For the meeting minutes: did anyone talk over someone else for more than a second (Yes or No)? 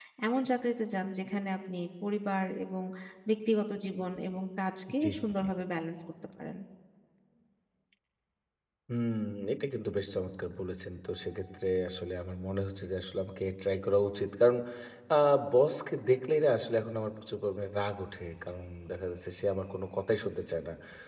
No